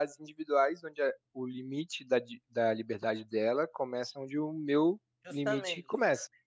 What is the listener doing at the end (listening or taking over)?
taking over